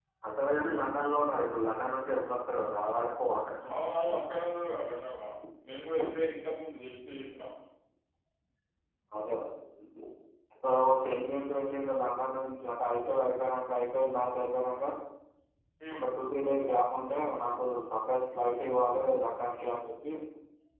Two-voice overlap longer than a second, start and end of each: none

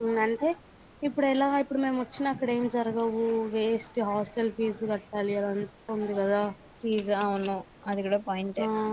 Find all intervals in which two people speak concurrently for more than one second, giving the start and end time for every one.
none

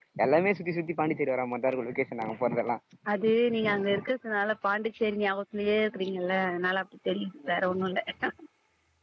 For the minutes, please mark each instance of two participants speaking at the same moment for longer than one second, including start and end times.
none

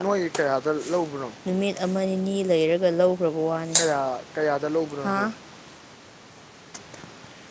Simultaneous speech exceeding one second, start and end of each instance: none

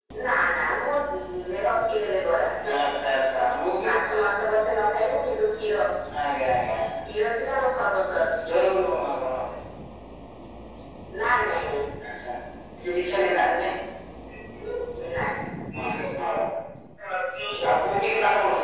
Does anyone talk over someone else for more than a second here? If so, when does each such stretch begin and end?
none

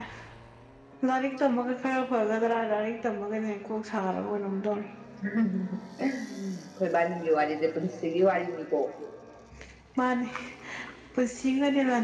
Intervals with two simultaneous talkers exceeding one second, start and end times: none

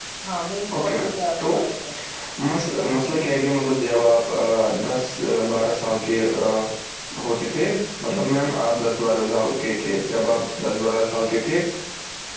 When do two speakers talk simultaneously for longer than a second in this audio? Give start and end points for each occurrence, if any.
none

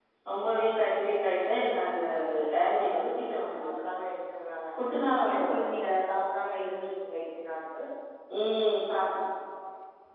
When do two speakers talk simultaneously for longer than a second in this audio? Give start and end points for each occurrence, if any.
none

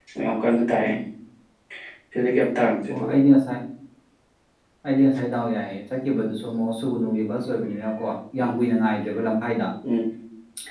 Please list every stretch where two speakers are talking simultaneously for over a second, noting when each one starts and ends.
none

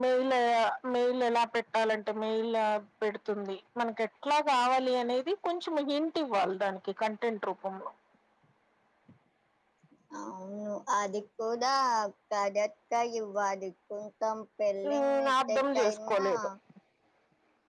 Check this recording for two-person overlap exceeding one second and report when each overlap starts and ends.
14.9-16.2

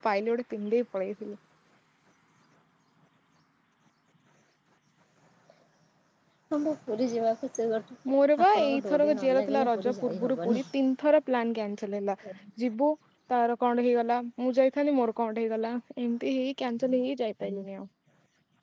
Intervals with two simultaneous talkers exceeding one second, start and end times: 8.4-10.6

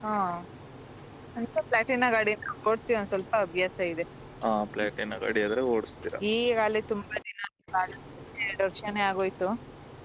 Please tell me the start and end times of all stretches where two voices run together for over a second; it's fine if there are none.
none

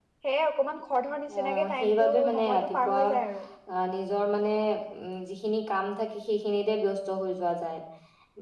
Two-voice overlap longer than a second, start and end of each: 1.4-3.0

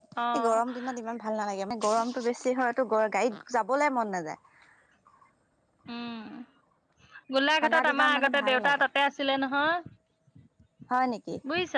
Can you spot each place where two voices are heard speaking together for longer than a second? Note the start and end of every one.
7.6-8.8

